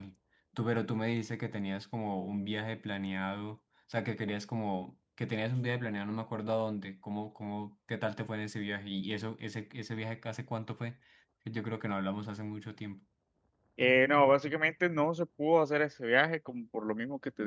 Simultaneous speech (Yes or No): No